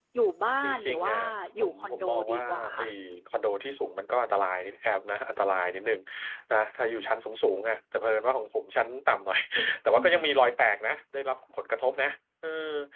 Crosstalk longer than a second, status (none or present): present